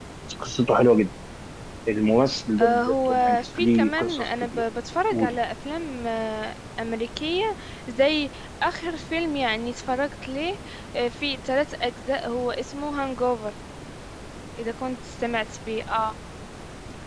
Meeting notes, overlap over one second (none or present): present